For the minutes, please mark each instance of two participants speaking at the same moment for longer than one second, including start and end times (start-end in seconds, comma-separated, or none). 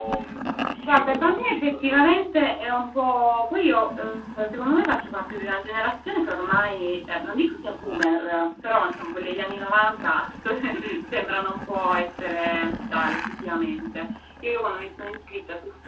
0.9-2.3